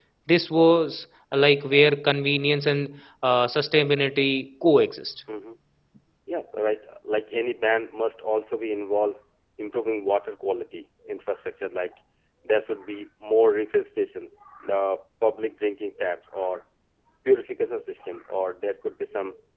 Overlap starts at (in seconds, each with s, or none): none